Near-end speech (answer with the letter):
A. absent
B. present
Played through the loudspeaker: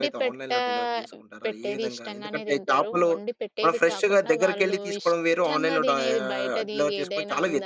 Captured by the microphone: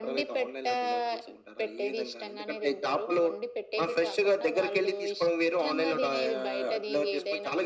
A